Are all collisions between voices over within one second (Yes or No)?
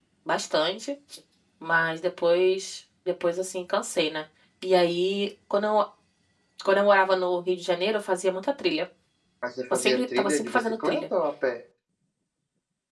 No